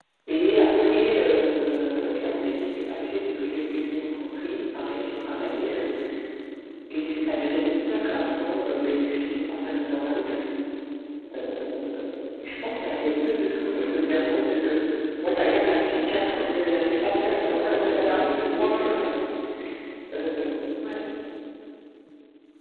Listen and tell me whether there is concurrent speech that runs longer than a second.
Yes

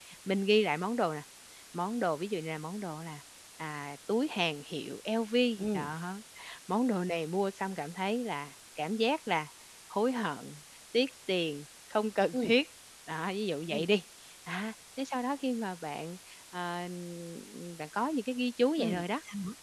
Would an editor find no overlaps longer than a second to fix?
Yes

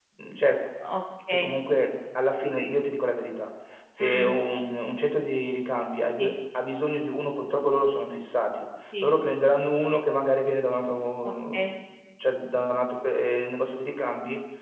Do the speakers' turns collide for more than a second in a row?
No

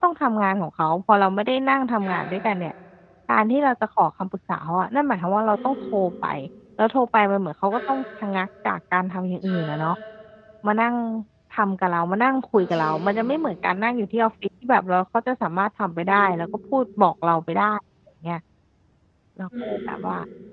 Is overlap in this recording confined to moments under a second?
Yes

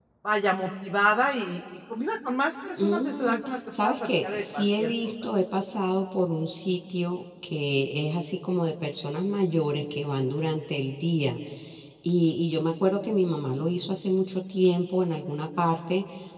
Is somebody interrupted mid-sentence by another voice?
Yes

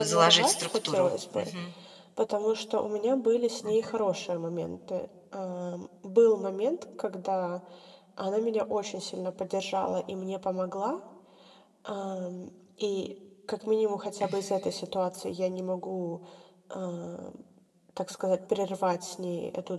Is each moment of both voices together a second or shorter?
No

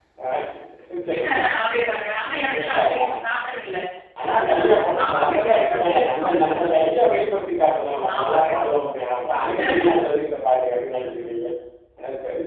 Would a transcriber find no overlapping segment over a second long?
No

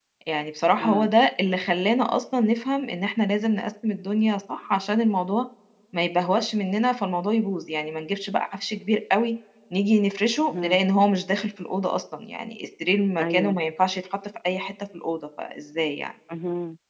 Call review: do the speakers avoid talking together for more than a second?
Yes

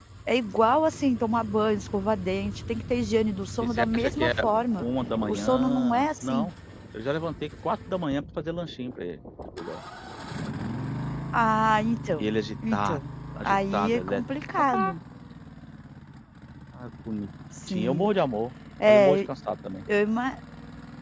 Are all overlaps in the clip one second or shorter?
No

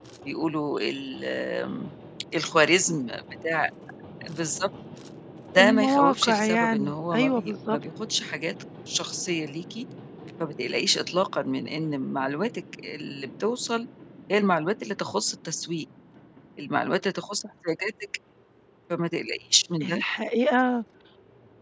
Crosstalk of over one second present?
Yes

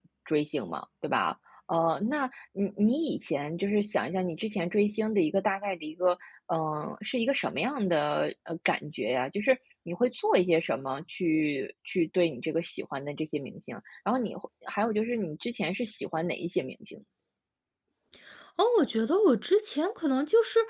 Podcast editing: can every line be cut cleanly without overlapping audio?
Yes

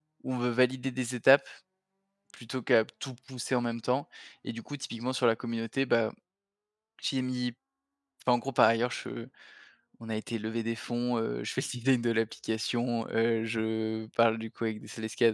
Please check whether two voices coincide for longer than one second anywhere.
No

